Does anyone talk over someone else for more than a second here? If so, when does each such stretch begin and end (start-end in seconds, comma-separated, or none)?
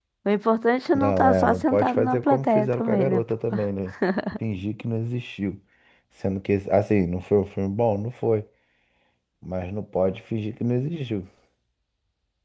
0.9-3.2